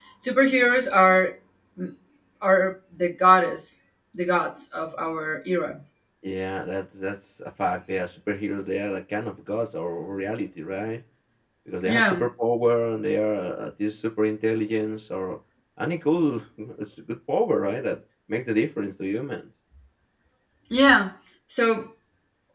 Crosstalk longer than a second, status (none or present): none